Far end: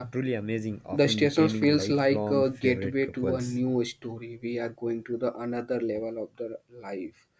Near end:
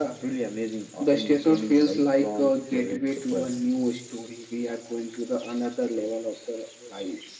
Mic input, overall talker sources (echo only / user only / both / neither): echo only